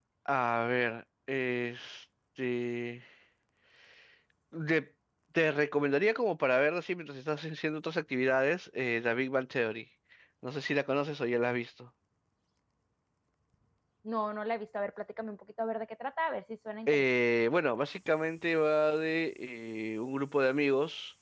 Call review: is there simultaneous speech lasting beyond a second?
No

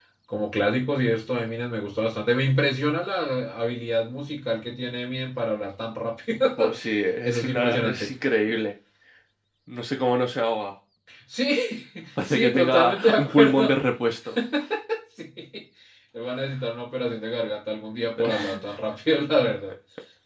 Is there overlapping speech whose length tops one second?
Yes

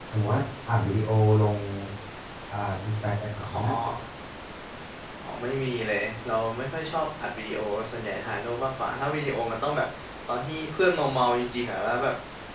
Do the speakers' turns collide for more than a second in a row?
No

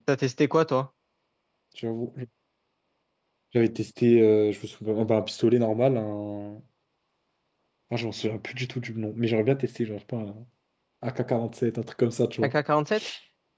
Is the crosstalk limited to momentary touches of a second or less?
Yes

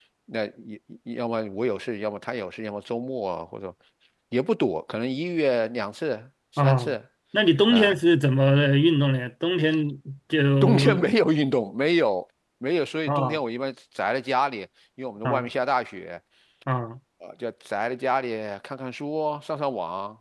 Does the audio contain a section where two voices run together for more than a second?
No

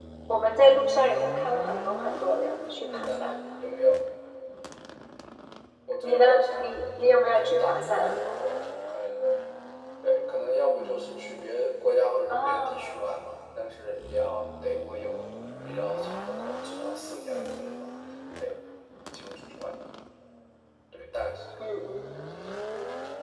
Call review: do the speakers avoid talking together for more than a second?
No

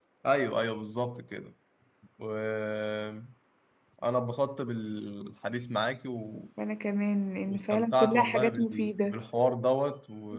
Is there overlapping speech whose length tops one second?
Yes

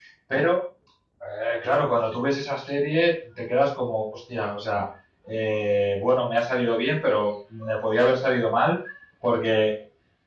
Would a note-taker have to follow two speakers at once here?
No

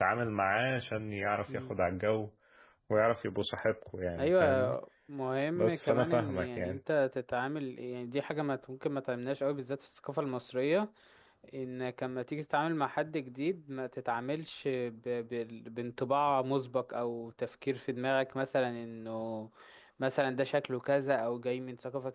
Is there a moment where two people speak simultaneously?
Yes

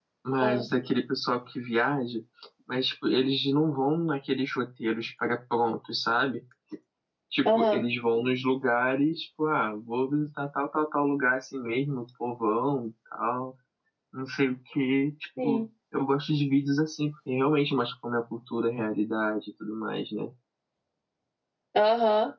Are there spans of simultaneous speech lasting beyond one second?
No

